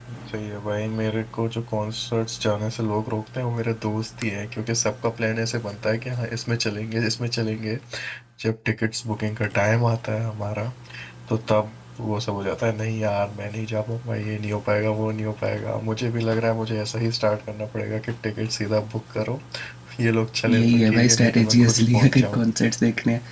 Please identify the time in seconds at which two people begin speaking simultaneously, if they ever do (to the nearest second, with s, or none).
21 s